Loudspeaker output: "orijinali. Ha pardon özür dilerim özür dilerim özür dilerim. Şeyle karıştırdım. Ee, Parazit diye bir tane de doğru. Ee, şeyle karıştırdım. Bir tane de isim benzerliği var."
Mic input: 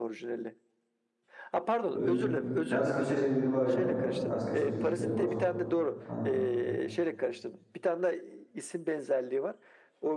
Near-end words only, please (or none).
Öyle bir ters köşe şeyleri var yani. Ters köşe kültürleri var. Aynen.